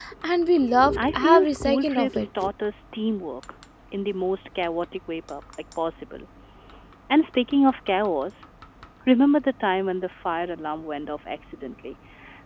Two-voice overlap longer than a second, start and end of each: 1.0-2.3

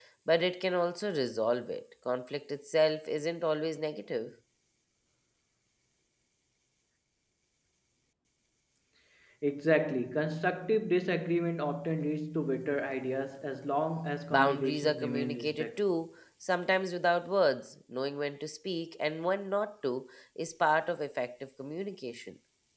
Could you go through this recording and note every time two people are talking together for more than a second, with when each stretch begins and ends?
14.3-15.8

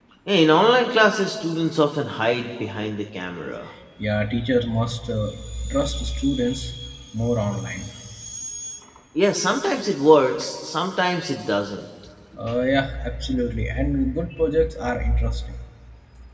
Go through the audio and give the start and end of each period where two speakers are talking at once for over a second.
none

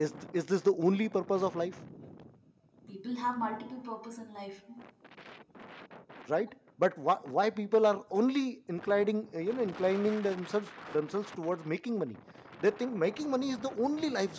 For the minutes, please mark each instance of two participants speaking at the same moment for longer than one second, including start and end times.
none

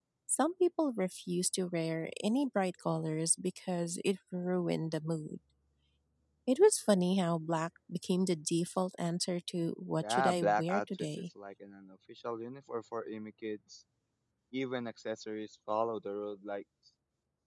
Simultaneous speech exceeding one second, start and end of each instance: 10.0-11.2

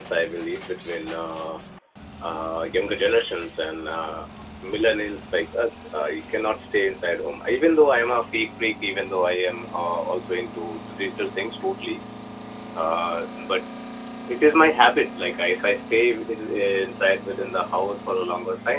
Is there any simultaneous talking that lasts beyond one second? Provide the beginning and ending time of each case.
none

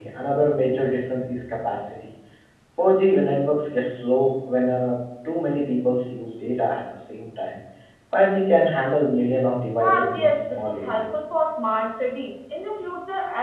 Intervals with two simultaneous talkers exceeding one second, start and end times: 9.8-11.1

